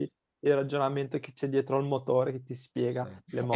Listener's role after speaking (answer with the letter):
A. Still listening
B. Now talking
B